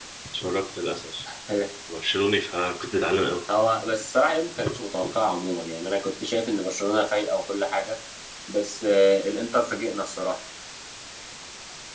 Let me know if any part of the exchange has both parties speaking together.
No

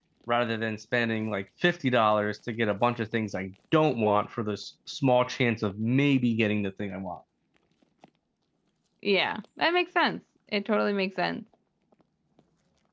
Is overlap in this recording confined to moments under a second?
Yes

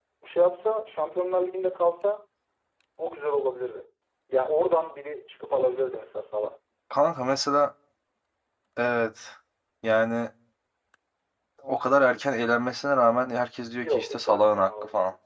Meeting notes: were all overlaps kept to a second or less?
No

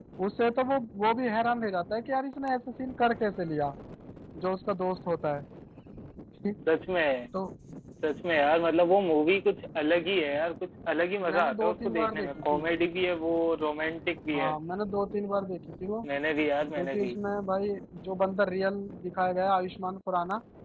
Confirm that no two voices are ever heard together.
No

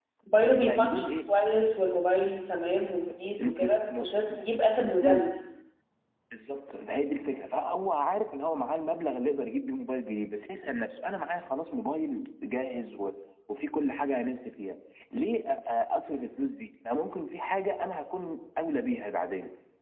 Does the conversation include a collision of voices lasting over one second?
Yes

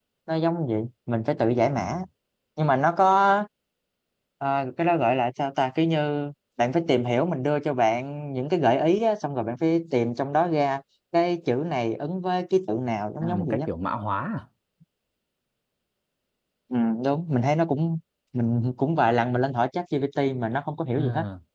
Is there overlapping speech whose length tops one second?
No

